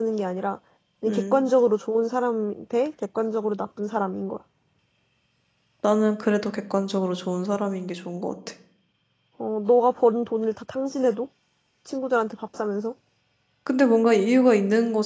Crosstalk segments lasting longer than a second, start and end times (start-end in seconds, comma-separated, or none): none